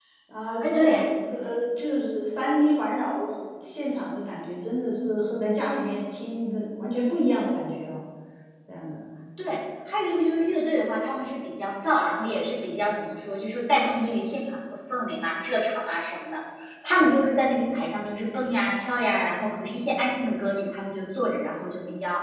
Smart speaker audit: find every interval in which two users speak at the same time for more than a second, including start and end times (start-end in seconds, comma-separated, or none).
none